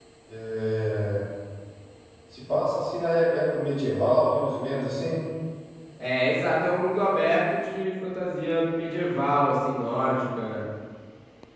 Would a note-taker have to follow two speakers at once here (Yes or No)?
No